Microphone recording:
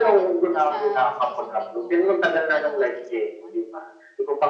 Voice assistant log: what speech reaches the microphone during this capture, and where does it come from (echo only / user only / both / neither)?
both